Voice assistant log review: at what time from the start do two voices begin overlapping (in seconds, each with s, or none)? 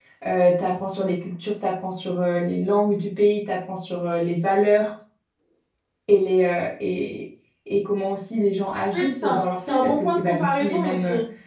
8.9 s